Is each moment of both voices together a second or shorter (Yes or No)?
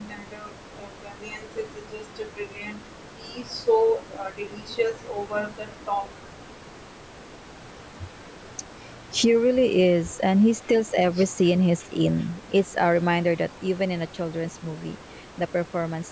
Yes